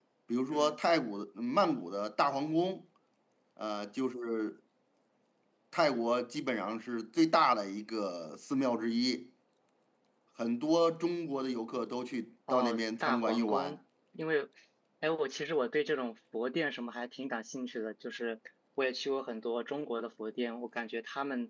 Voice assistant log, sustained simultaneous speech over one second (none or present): present